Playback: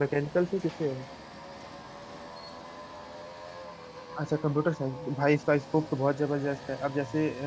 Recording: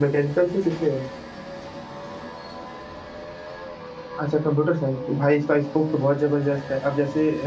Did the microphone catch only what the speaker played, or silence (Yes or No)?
Yes